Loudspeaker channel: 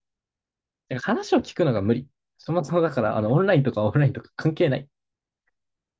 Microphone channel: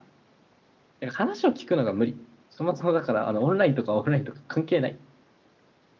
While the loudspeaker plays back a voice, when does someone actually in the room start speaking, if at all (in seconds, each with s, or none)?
none